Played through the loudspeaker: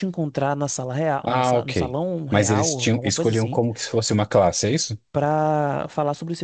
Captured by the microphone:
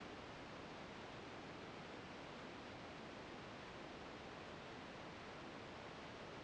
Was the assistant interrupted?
No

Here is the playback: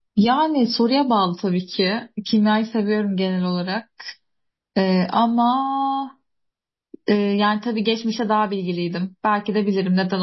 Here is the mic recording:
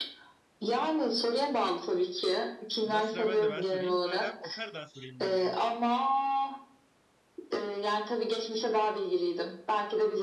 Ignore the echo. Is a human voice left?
Yes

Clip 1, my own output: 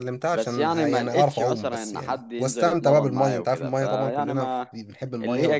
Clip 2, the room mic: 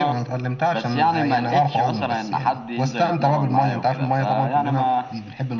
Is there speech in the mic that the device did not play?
No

